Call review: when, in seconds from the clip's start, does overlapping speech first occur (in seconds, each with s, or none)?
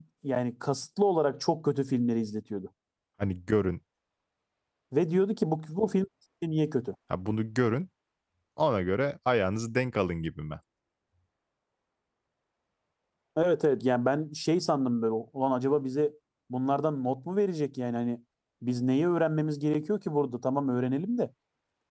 none